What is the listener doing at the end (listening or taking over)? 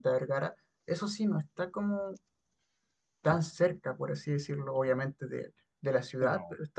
listening